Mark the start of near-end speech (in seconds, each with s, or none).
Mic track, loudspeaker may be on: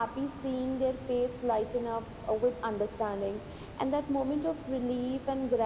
none